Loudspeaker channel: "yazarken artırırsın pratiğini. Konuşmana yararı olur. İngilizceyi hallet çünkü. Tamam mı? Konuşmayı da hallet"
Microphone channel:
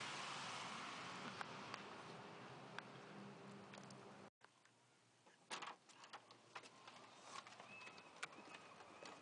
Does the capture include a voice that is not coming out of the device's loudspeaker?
No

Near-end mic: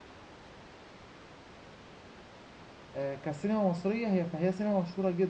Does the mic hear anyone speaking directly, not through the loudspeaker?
Yes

